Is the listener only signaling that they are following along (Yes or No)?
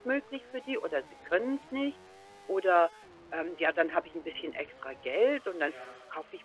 Yes